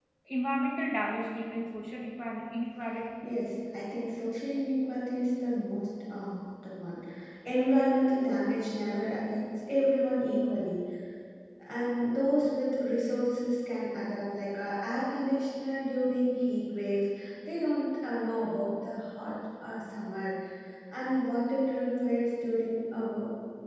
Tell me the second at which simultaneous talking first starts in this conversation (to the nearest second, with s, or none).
none